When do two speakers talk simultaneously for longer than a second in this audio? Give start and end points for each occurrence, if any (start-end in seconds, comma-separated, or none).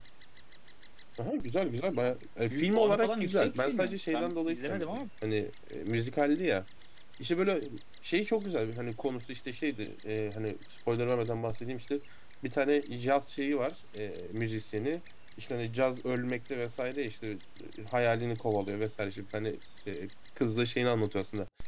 2.5-5.0